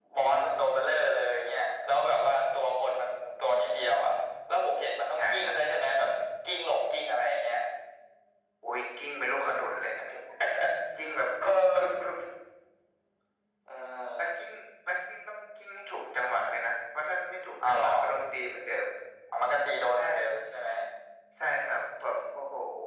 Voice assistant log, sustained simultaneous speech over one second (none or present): none